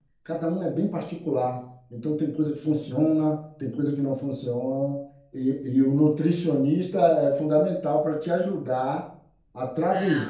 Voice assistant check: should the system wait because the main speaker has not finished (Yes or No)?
Yes